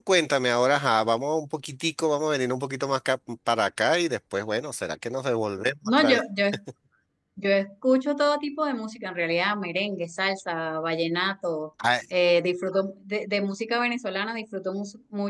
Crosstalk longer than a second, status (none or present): none